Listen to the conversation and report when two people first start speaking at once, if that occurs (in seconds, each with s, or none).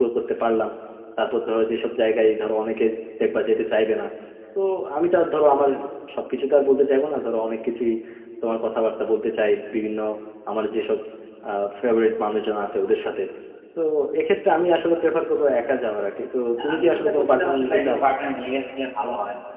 16.6 s